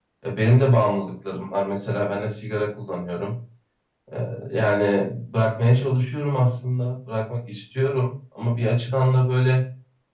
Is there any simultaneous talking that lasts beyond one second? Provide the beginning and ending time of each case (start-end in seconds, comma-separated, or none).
none